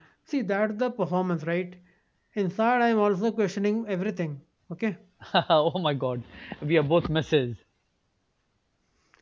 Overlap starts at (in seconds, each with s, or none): none